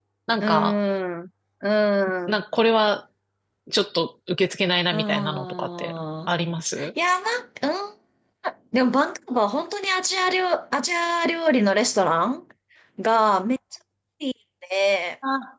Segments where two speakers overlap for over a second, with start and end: 4.9-6.3

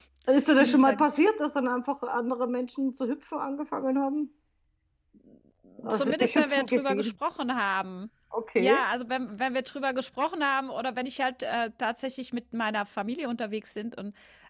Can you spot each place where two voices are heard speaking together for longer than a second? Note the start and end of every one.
5.9-7.1

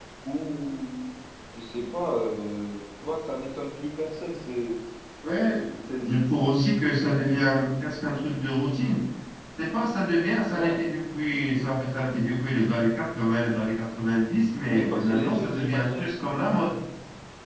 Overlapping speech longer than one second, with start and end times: 14.7-16.1

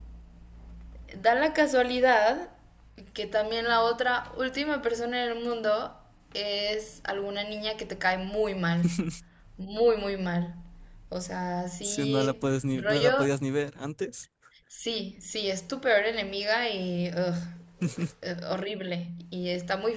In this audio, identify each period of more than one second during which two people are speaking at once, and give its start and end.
11.8-13.3

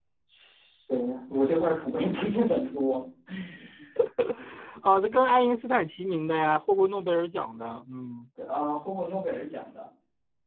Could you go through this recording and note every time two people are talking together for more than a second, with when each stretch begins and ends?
none

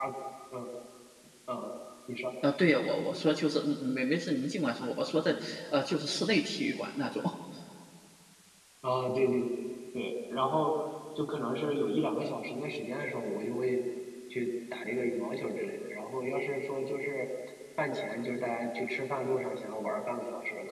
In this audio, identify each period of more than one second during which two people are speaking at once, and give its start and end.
none

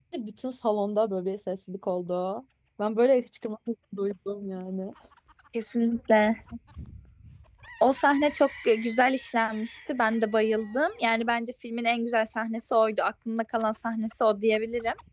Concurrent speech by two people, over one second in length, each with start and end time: none

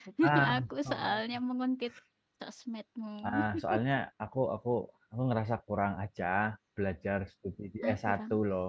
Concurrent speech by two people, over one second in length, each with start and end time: none

